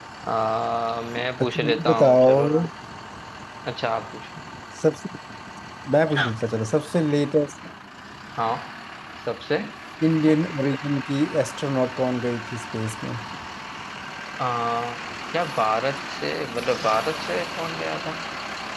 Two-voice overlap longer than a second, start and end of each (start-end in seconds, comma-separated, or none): 1.4-2.6